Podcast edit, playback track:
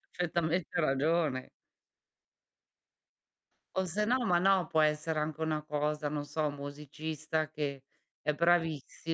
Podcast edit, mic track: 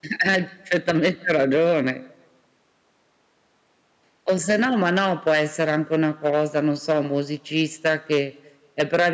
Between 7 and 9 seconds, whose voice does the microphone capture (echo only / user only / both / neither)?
echo only